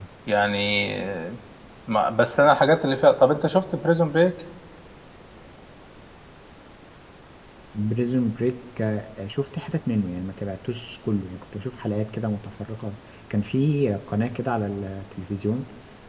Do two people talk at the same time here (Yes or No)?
No